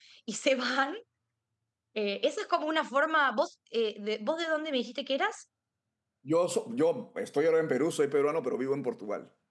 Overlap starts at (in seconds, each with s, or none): none